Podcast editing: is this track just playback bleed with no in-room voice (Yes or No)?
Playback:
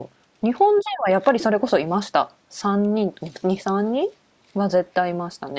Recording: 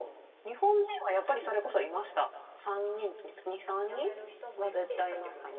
No